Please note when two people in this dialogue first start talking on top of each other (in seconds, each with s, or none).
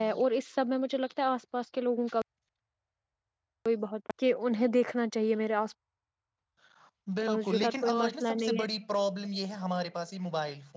7.3 s